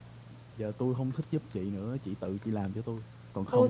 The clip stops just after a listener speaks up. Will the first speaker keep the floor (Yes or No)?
No